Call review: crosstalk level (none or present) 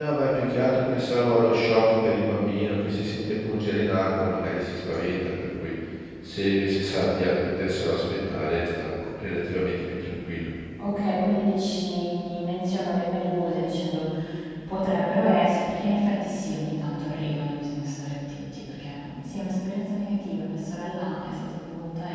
none